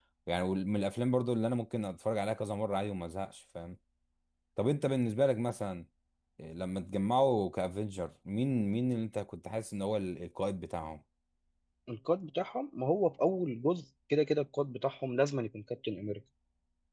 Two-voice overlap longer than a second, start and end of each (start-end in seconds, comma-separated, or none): none